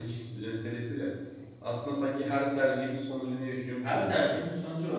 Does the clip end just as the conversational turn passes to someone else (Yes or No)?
Yes